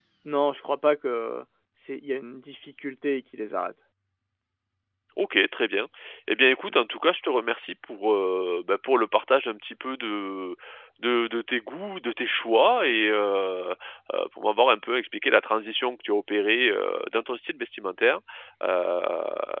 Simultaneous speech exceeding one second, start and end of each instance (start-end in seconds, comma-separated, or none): none